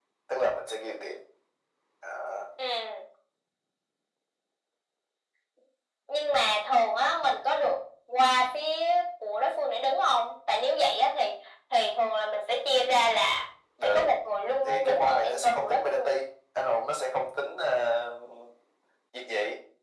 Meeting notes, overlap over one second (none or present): present